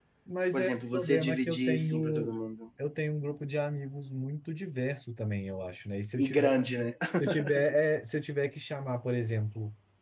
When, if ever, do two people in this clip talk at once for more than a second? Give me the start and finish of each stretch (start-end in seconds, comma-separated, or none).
0.5-2.3